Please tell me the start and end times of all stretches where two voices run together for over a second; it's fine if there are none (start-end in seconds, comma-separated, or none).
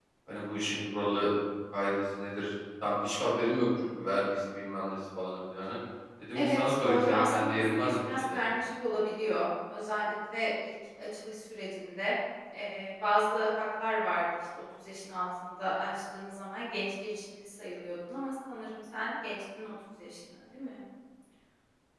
6.3-8.4